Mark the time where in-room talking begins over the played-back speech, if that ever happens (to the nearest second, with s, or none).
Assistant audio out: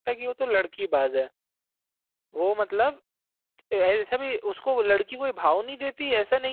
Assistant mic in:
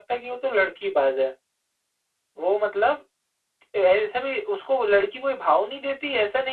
none